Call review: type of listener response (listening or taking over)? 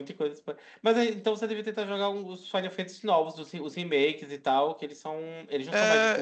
taking over